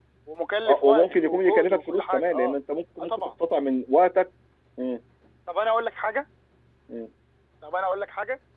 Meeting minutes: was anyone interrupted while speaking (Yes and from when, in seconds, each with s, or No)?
Yes, from 0.7 s